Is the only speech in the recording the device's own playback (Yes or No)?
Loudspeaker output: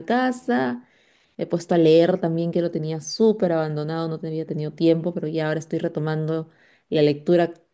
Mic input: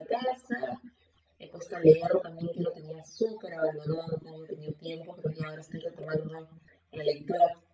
Yes